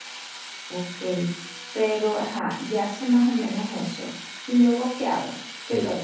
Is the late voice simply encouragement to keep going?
No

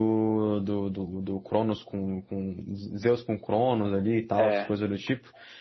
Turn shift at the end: No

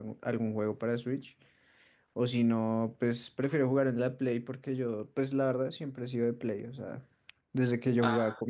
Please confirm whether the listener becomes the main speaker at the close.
No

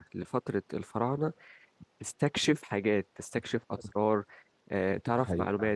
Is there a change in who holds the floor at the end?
Yes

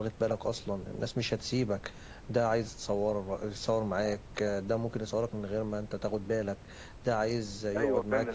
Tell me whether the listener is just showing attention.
No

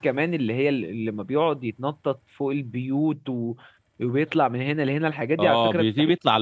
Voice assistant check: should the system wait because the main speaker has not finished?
No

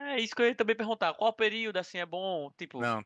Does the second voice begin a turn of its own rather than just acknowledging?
No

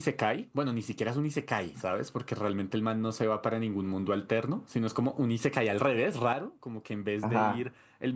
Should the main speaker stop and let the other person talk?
No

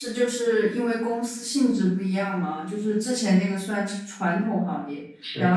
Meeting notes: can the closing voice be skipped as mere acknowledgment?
Yes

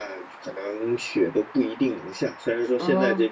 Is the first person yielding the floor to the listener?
No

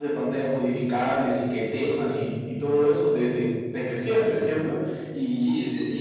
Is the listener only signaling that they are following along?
No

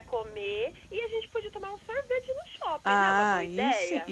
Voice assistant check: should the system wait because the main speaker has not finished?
No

